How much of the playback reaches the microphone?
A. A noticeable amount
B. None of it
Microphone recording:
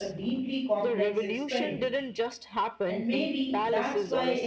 A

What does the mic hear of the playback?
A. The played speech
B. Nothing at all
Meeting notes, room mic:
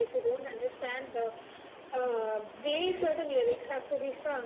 A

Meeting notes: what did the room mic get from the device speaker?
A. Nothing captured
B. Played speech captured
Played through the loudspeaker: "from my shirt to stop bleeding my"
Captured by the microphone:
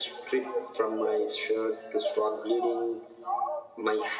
B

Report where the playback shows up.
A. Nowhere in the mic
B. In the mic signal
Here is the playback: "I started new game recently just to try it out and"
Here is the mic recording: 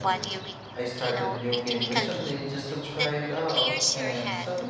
B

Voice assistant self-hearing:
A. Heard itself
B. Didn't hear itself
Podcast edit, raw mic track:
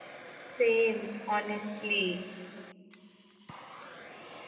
B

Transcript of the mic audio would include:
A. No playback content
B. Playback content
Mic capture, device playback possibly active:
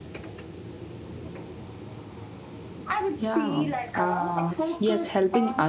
B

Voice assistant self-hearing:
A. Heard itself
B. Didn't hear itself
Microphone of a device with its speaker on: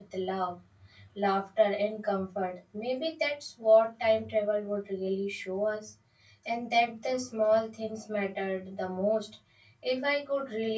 B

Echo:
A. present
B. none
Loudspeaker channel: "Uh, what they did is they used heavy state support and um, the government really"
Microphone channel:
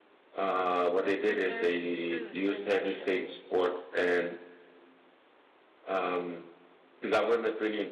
A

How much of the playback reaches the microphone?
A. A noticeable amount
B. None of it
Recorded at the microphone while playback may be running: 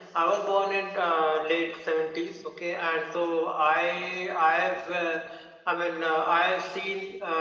A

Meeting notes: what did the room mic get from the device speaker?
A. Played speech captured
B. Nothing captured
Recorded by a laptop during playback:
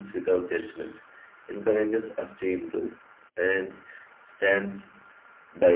A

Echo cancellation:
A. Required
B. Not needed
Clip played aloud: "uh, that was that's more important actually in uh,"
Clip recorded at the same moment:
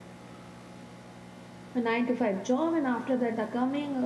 B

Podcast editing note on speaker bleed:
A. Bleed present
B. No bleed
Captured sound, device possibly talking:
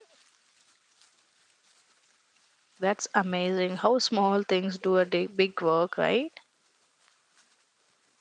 B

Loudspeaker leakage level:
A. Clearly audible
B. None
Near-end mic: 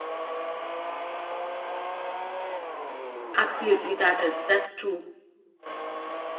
B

